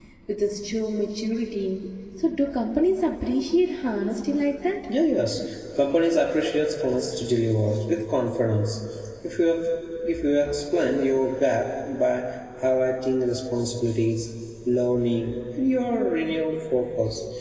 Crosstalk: none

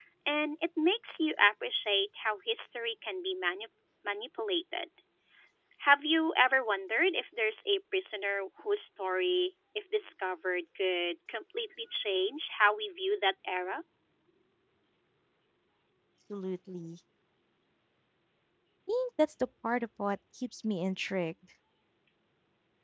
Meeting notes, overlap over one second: none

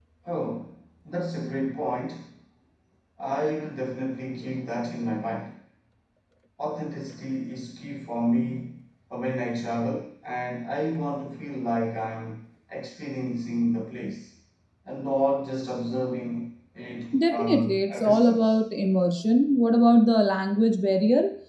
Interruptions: present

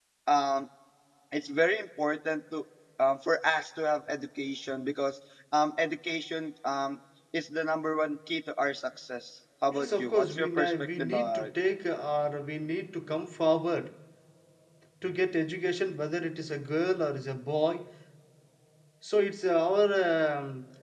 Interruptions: present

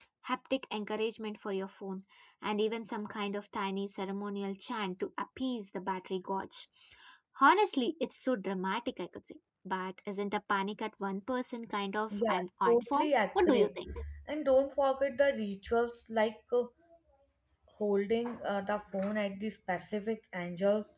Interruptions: present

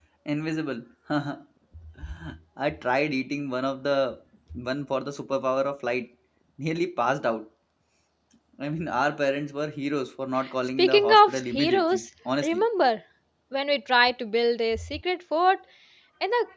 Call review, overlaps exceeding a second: present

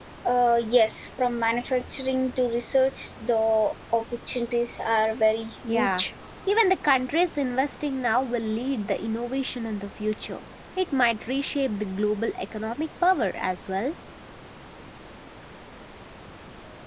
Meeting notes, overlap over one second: none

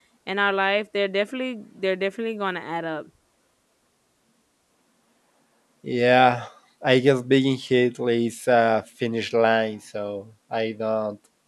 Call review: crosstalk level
none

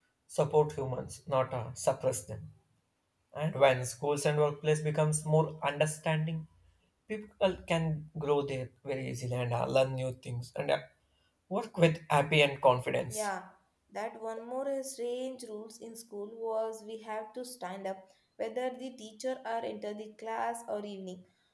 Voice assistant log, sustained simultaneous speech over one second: none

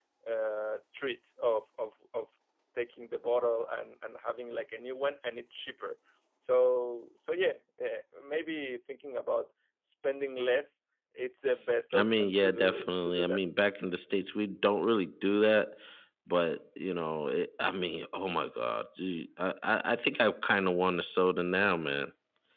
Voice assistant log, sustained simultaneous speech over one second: present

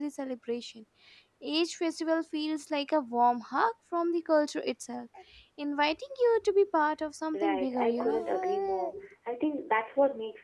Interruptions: present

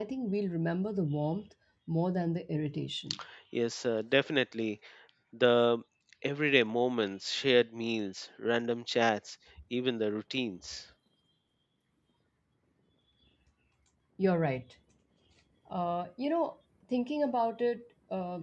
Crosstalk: none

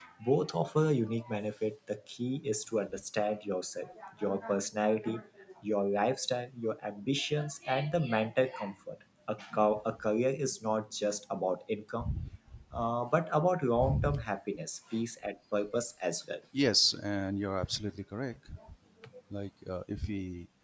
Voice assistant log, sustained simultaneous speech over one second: none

